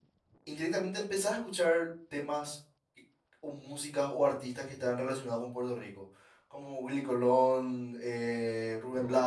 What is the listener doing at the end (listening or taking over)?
taking over